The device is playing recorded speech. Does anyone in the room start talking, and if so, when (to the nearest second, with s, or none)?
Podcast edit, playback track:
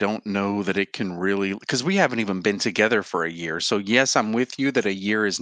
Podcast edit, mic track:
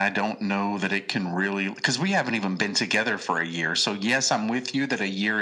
none